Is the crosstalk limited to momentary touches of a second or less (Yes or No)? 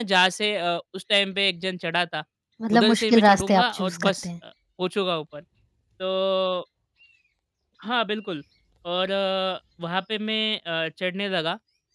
No